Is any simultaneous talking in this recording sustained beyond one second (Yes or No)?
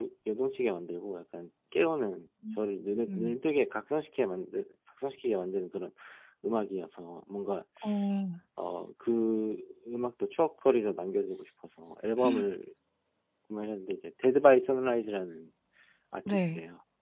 No